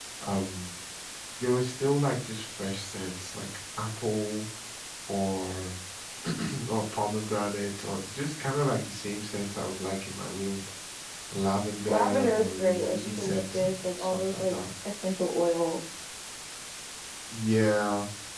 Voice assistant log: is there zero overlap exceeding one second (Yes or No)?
No